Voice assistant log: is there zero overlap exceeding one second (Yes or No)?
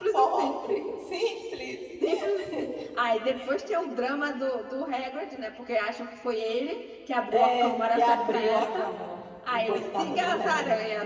No